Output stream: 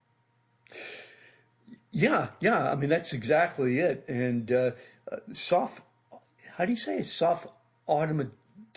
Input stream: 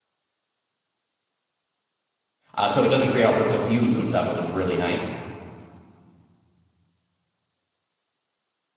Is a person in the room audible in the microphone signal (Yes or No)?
Yes